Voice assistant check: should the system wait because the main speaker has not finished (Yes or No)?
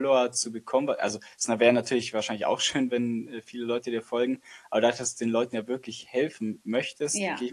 Yes